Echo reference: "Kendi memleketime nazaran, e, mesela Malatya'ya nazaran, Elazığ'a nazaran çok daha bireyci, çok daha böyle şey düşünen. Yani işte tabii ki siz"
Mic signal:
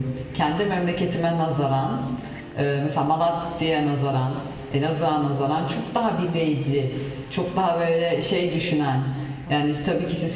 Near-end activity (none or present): none